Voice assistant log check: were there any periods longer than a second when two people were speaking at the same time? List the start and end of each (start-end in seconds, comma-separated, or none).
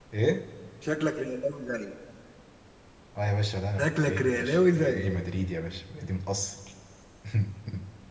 3.8-5.2